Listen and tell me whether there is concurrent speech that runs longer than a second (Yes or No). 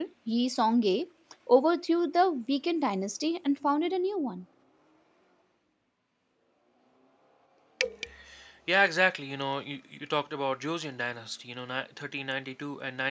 No